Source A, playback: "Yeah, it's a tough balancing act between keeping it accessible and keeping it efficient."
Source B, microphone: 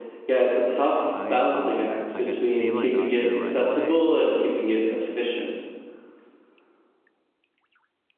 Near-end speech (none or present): present